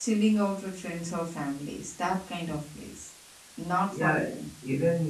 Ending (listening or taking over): taking over